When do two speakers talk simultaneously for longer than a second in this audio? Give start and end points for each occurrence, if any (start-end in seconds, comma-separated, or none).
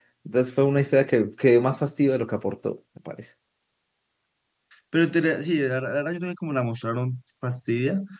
none